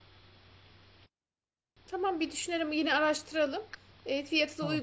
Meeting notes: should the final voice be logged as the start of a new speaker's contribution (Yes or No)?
No